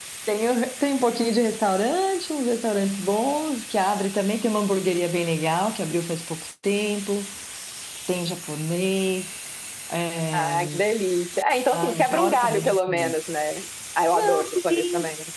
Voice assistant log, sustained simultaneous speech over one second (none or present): present